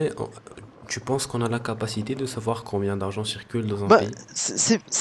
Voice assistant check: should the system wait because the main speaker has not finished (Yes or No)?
No